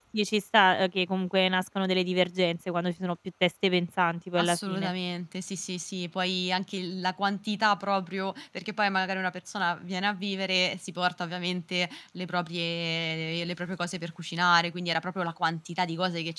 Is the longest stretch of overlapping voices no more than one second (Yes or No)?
Yes